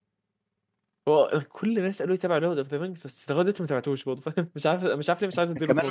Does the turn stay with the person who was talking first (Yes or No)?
No